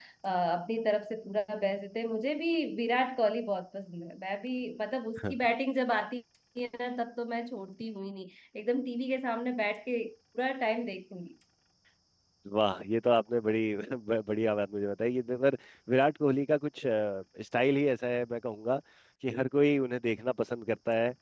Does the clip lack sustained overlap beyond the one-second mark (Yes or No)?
Yes